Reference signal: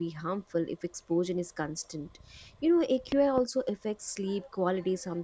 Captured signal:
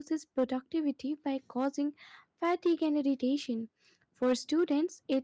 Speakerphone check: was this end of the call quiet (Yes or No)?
No